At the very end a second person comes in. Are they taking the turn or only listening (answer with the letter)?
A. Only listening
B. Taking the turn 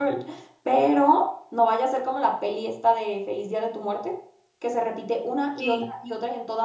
A